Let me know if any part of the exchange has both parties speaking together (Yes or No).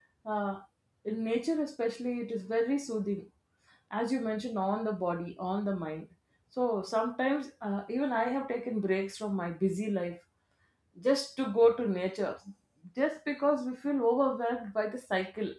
No